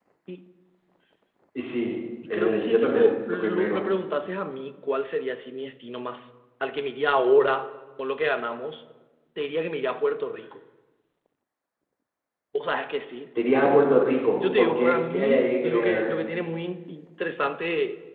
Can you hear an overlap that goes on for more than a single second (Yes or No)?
Yes